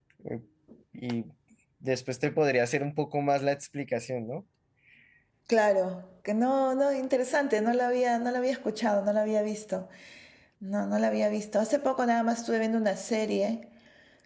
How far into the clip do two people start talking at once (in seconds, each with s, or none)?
none